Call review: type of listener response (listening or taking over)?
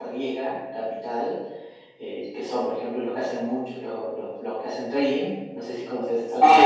taking over